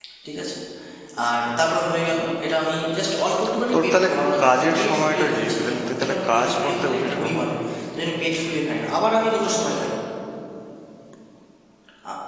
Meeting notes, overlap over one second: present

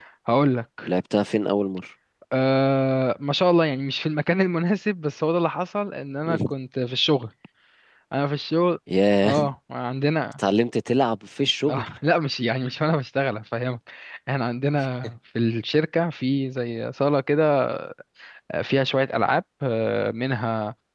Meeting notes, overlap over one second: none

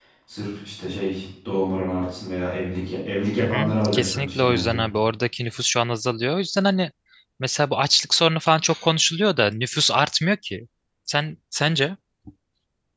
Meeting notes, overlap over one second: present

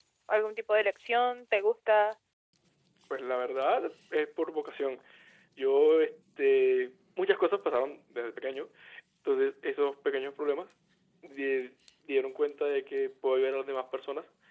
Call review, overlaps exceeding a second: none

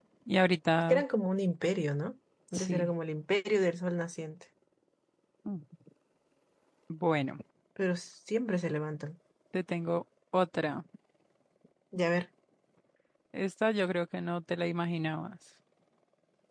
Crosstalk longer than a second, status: none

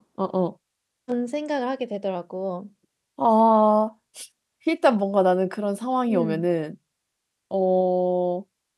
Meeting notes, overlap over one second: none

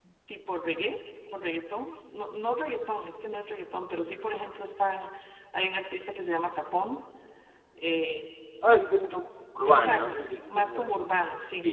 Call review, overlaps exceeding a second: present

